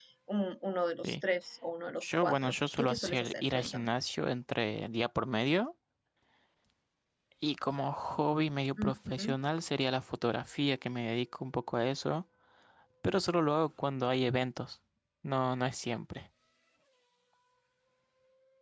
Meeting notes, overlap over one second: present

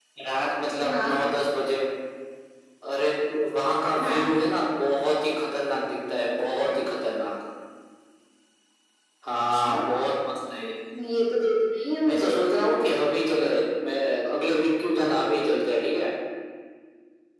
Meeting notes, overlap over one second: none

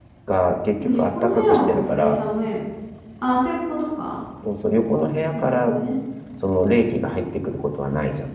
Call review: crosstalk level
present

